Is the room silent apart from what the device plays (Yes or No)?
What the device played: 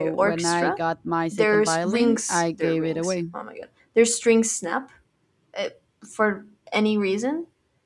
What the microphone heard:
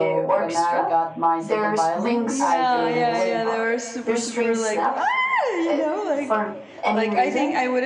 No